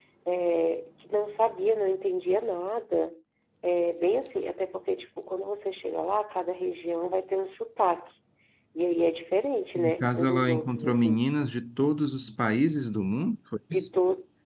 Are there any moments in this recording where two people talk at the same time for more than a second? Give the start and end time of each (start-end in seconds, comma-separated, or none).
9.8-11.2